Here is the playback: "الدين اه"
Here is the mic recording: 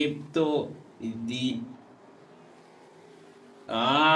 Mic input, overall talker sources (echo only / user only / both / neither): echo only